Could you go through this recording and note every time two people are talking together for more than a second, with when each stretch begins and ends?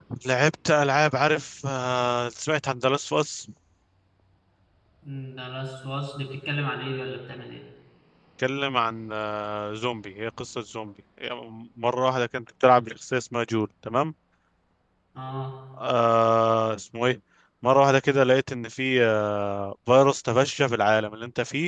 none

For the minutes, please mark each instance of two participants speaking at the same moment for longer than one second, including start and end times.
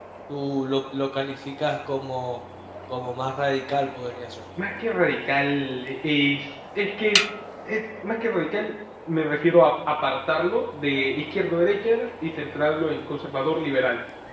none

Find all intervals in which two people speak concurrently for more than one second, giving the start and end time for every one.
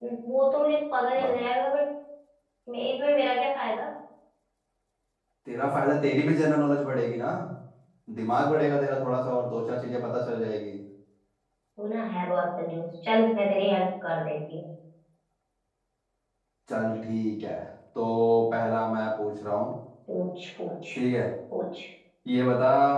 none

